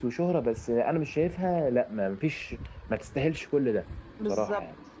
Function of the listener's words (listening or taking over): taking over